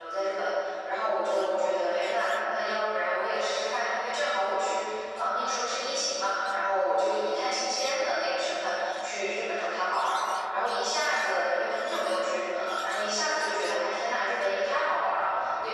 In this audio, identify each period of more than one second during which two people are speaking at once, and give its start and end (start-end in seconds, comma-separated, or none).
none